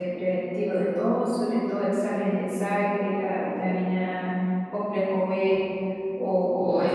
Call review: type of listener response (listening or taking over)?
taking over